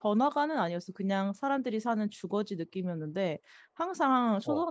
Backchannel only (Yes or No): Yes